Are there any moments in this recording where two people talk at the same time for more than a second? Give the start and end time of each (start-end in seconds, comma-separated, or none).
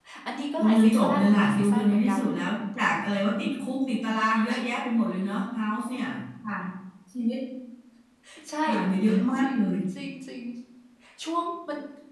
0.6-2.2